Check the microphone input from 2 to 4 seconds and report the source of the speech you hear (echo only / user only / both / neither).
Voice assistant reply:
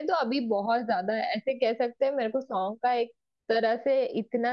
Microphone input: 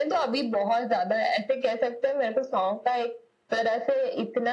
echo only